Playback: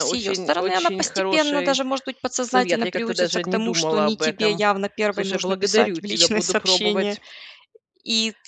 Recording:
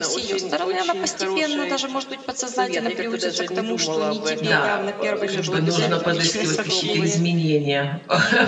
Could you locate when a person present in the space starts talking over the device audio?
4.4 s

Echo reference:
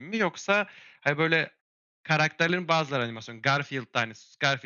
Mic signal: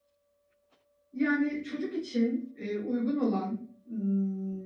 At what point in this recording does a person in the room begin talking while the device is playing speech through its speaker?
1.1 s

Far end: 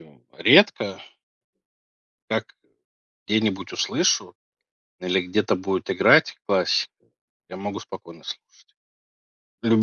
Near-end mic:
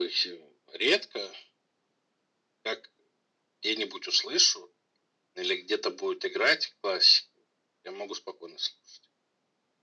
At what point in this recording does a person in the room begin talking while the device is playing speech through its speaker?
none

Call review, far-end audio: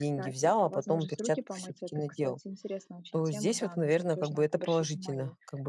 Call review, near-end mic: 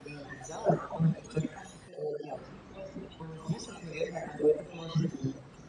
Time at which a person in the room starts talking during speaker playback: none

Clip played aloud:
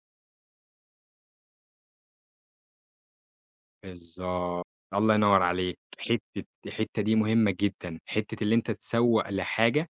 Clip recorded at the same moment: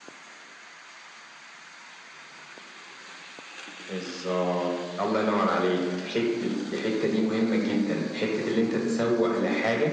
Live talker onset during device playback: none

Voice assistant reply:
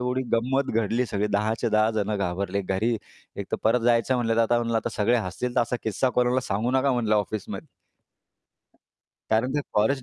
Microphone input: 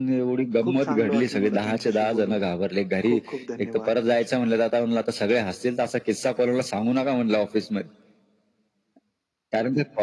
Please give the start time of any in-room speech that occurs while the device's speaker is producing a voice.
0.6 s

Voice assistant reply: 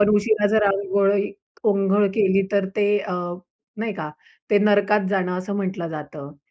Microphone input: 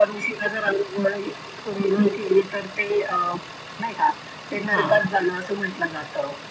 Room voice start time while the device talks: 4.5 s

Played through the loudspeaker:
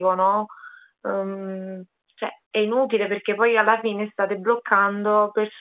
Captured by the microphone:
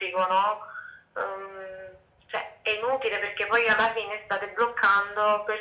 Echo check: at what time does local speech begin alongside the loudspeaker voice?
none

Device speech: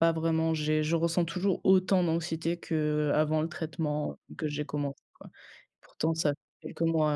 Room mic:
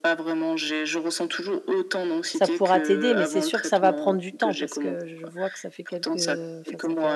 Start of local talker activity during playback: 2.3 s

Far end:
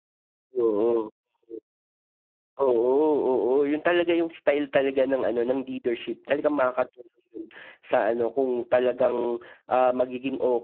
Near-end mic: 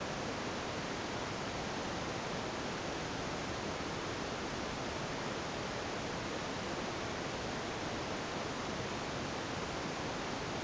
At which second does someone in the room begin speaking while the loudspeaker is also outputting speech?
none

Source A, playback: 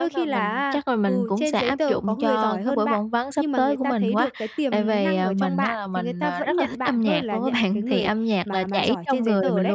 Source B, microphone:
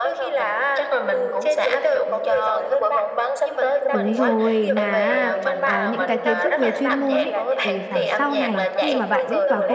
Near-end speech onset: 3.9 s

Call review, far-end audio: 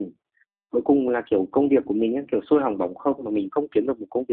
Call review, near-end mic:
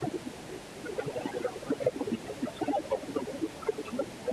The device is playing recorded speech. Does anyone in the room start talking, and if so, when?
none

